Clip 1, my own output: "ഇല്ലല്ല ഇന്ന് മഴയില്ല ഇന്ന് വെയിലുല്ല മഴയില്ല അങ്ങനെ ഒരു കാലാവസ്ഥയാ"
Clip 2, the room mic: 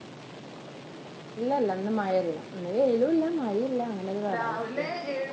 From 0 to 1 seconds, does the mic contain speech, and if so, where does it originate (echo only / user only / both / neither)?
neither